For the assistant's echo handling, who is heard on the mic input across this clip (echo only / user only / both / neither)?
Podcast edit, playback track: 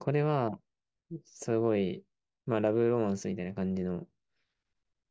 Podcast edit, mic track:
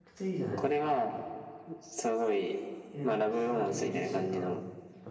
both